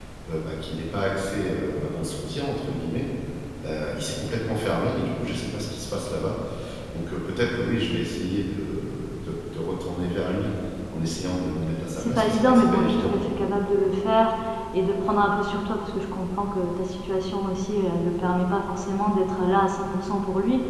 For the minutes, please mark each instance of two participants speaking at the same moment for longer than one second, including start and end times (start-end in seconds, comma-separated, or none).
12.0-13.3